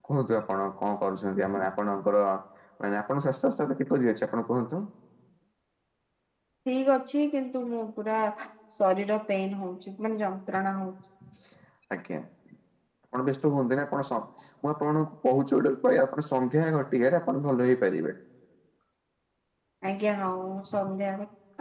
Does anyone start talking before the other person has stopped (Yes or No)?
No